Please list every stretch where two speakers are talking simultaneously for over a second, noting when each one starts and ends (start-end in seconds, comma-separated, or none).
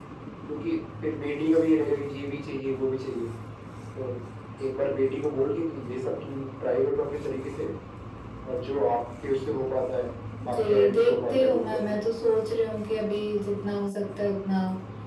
10.5-12.0